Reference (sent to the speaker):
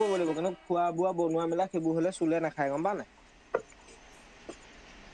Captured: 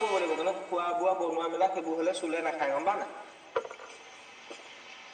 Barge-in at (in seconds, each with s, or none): none